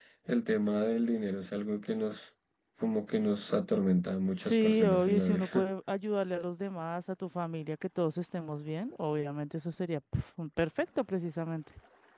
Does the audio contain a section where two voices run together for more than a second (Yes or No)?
Yes